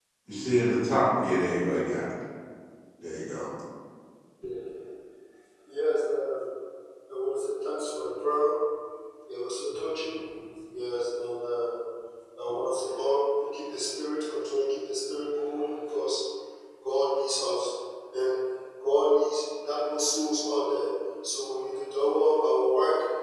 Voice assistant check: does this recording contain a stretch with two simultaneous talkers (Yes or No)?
No